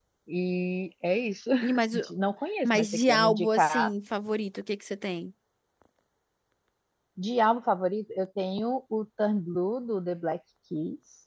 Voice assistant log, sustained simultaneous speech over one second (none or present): present